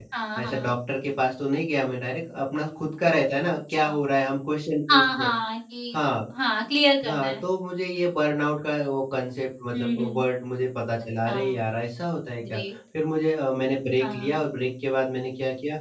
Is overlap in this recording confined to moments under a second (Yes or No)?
Yes